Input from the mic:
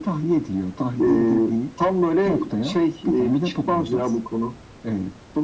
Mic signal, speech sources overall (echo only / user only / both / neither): echo only